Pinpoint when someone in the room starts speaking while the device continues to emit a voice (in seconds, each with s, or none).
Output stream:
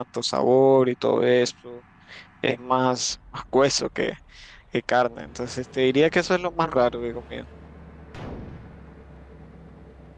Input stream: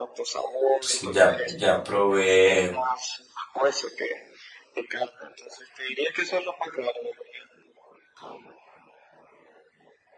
0.8 s